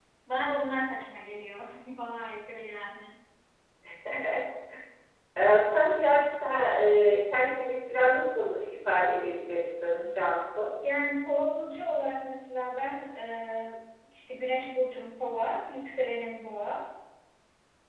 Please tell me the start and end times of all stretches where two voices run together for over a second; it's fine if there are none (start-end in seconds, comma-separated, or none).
none